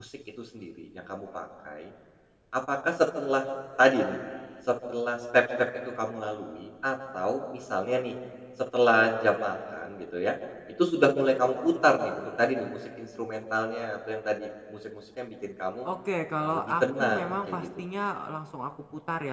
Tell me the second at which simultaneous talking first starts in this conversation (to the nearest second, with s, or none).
16 s